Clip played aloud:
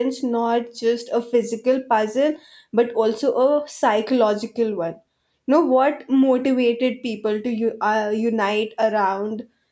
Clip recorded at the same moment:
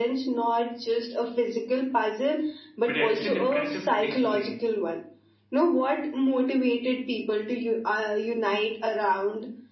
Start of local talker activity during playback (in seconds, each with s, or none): 2.9 s